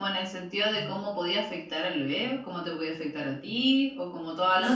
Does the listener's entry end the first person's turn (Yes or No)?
Yes